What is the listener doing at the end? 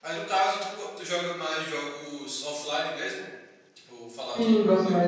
taking over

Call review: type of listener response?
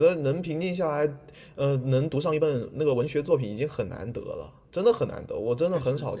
taking over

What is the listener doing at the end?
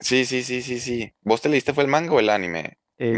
taking over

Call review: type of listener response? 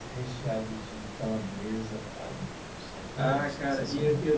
taking over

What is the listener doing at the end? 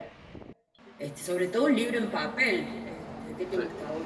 listening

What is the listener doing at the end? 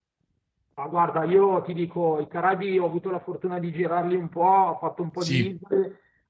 listening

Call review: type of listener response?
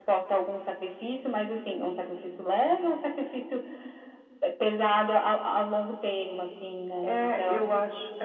taking over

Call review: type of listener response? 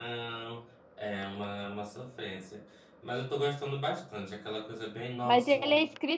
taking over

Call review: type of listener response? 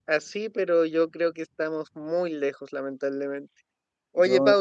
listening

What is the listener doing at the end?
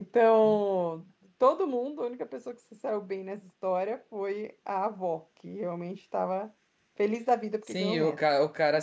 taking over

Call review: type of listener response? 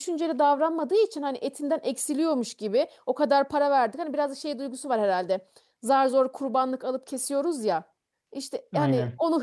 listening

